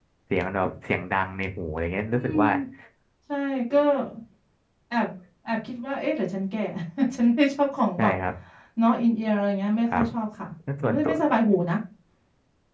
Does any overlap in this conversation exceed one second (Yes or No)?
No